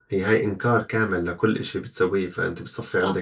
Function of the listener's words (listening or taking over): taking over